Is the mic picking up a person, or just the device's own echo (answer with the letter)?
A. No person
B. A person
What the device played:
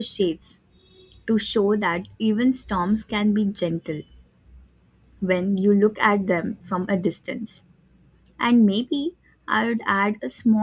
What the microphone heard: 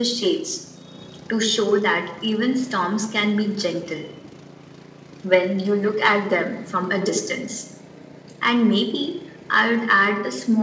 A